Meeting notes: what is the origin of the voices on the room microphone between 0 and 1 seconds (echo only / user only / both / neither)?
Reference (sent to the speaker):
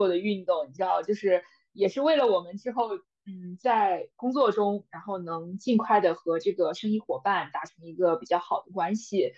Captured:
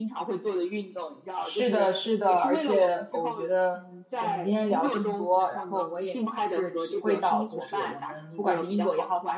echo only